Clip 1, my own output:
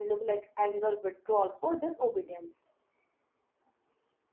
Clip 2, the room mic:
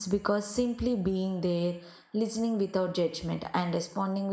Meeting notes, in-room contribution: present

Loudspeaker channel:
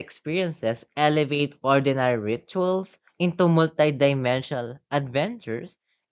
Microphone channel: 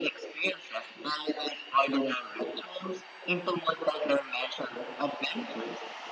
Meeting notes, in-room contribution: none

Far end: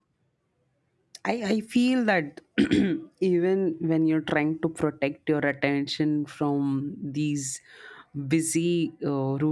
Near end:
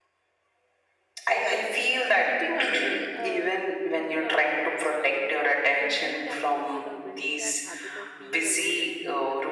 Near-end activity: present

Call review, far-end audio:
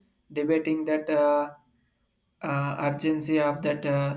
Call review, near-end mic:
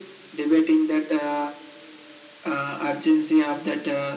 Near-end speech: none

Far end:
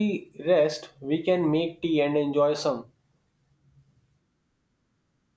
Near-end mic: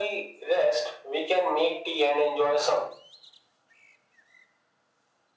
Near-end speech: none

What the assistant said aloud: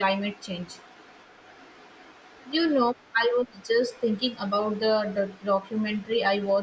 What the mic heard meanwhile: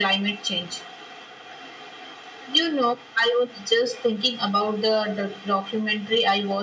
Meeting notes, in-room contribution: none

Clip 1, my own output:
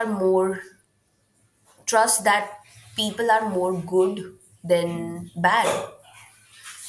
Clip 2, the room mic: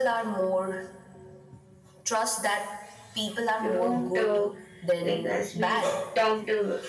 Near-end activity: present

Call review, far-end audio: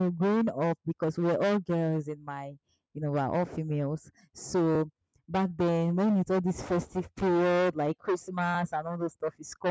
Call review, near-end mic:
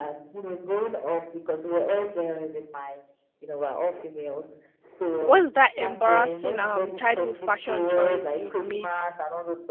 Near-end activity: present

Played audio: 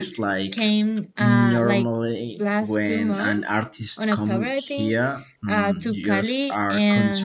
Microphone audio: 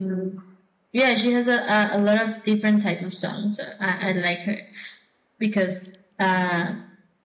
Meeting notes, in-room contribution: present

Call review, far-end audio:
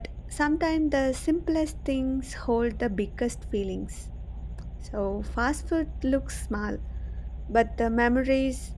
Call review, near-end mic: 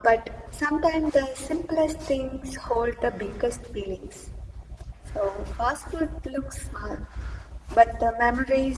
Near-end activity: none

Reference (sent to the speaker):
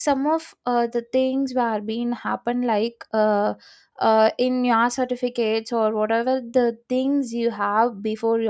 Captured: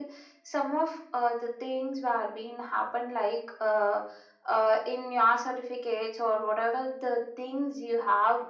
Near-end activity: none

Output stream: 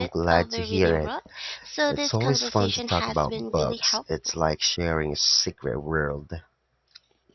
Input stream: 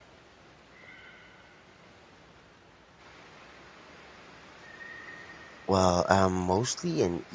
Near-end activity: present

